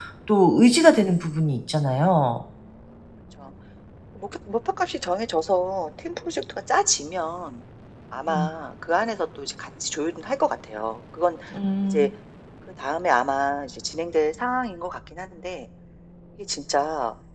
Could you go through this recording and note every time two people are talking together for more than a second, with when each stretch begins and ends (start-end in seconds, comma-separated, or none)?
none